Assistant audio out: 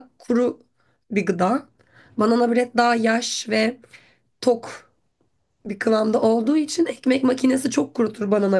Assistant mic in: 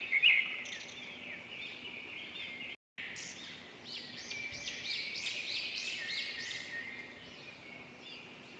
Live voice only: none

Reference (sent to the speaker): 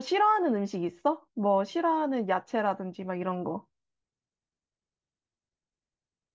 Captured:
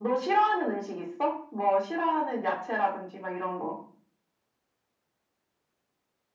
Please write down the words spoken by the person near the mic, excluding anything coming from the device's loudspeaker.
none

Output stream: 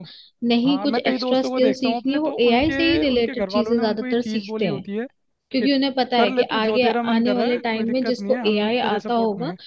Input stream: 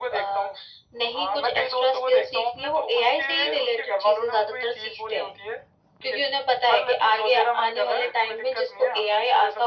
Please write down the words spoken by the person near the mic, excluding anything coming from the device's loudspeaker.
none

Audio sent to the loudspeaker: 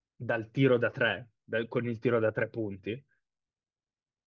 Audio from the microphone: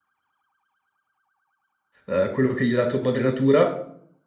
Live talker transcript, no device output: eh, quello che gli ha dato Madre Natura

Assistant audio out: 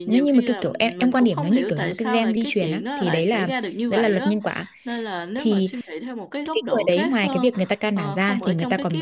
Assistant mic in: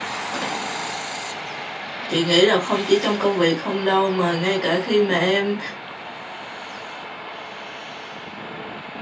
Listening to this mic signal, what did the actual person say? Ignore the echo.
Chị nghĩ là không chỉ trong công việc không đâu mà ngay cả khi mà em

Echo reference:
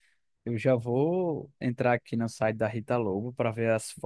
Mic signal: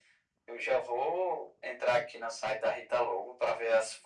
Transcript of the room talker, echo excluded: none

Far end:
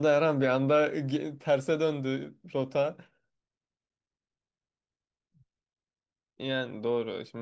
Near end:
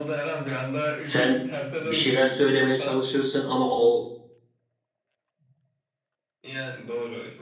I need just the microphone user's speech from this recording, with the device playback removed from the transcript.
sen bir şeyler söylemeye çalışırsın ama o

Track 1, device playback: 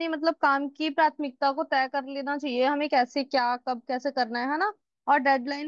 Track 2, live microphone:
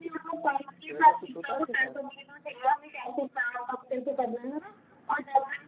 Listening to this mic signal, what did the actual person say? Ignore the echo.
तो ऐसा कुछ होता है आपके साथ

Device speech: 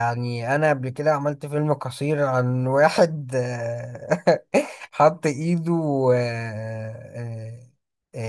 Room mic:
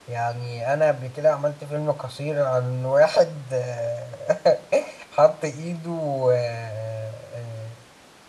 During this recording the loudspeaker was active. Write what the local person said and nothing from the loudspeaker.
none

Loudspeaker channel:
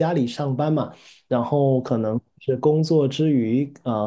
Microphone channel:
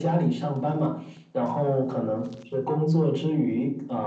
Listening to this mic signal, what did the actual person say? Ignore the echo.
none

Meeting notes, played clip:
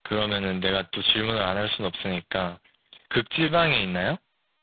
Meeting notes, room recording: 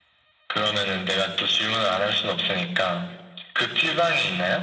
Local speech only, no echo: none

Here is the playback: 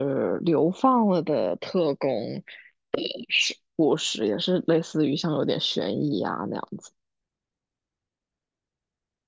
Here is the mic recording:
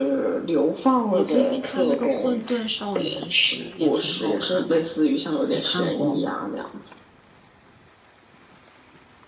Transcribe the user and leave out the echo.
我最近看那个《混沌少年时》也挺好看的，你看过吗？

